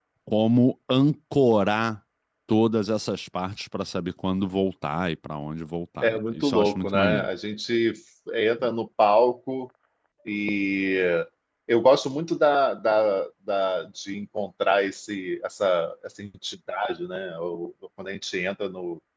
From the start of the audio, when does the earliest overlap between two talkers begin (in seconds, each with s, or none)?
6.0 s